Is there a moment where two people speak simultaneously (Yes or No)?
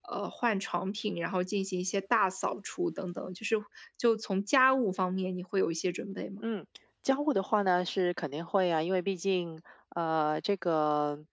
No